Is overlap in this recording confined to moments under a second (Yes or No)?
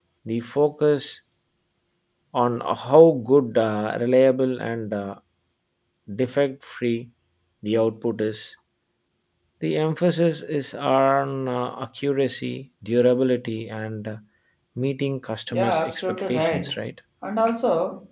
No